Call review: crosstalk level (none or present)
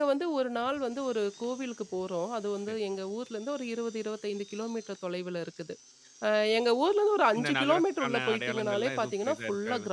present